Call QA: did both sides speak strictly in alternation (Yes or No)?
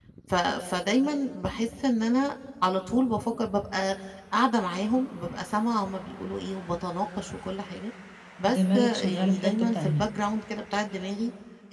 No